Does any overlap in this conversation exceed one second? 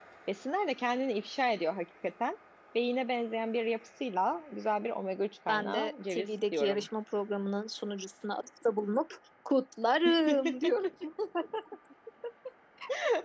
Yes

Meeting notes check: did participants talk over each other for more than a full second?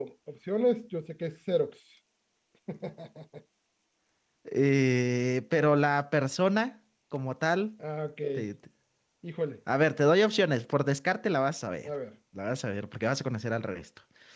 No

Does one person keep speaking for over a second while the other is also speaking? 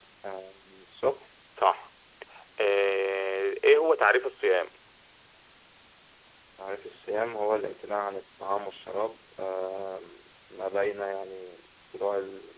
No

